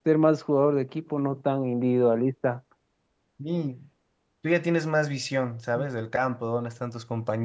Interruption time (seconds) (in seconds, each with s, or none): none